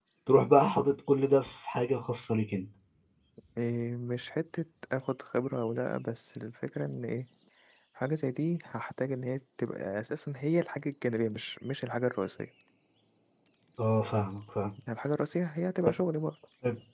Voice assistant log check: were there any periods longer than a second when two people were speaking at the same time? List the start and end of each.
none

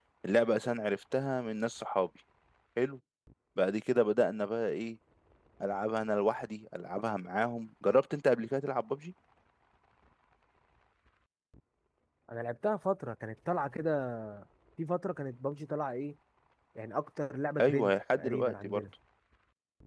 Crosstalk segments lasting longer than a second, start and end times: 17.6-18.8

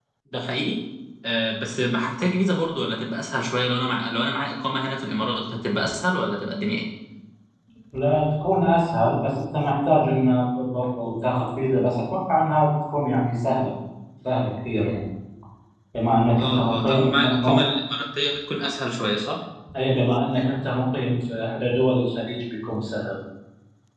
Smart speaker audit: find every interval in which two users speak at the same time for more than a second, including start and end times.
16.4-17.6

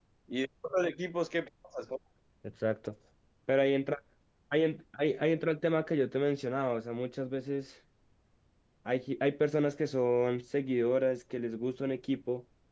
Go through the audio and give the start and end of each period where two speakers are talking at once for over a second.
none

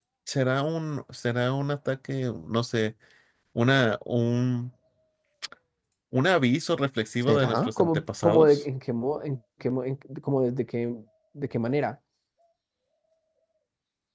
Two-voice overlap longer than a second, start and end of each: 7.3-8.6

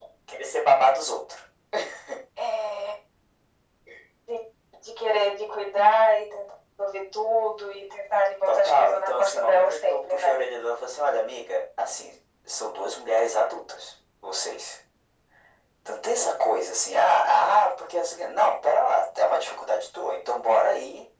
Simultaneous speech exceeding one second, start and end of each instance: 8.5-10.4

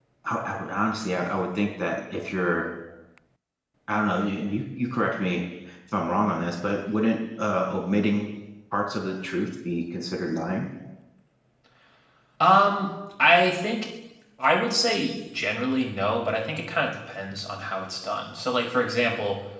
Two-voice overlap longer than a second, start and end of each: none

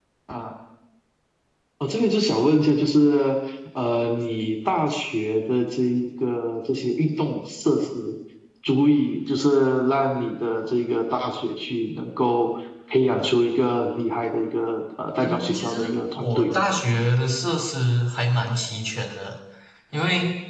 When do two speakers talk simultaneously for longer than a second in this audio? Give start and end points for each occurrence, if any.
15.2-16.6

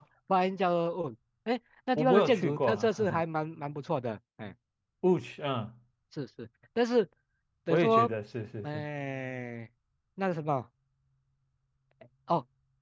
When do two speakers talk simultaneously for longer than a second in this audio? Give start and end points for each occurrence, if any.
2.0-3.2

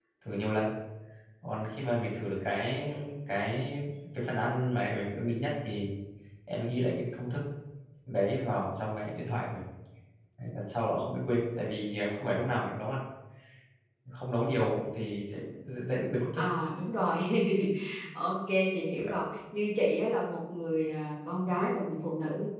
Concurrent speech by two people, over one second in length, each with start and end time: none

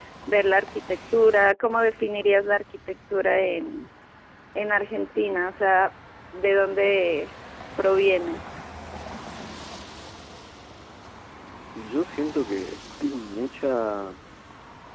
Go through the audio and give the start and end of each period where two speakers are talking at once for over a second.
none

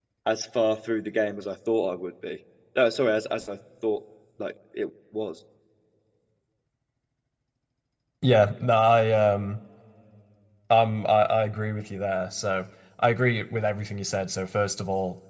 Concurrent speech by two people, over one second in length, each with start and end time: none

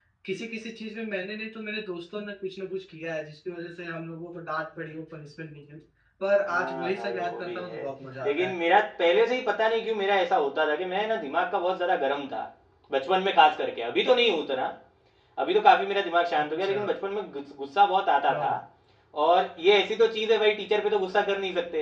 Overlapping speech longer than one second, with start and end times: 6.4-7.8

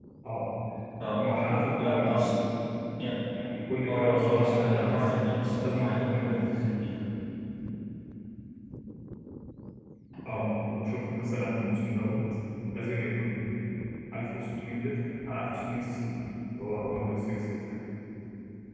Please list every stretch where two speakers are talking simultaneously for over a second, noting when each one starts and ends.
3.9-6.5

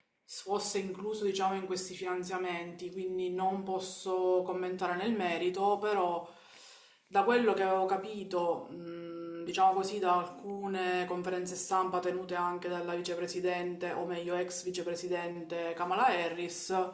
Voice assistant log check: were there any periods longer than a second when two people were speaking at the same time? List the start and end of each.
none

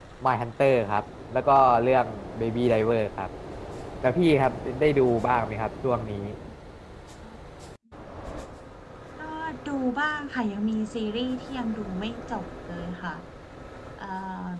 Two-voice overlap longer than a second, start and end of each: none

